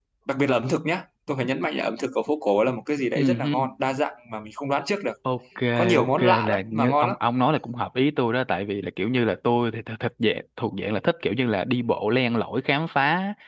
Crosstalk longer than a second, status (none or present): present